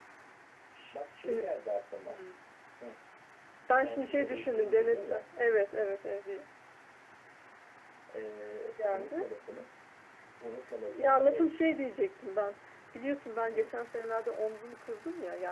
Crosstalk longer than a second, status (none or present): present